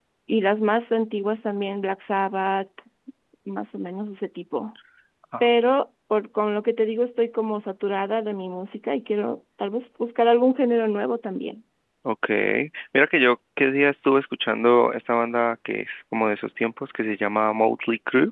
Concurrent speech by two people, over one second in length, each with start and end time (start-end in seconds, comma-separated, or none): none